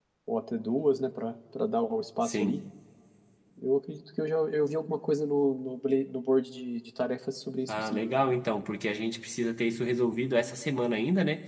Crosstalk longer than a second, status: none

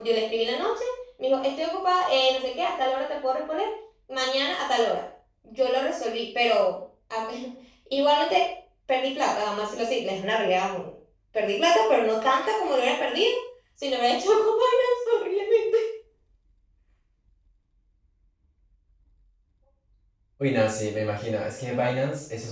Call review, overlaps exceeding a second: none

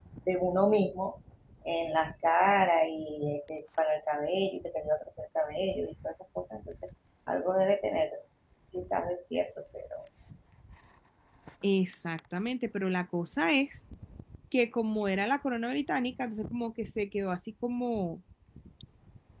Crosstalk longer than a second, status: none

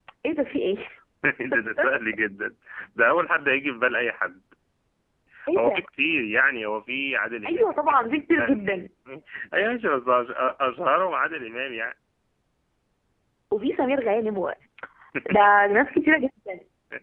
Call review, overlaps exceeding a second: present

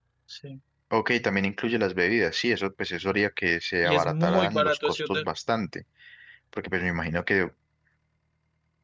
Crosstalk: present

